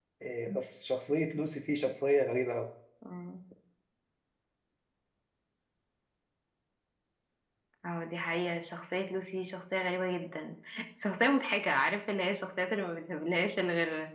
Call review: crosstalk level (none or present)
none